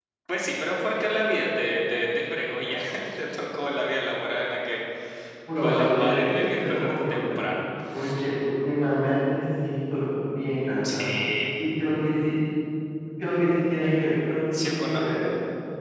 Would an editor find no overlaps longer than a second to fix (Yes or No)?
No